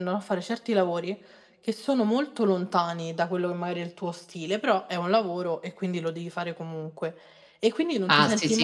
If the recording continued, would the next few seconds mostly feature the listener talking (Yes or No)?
Yes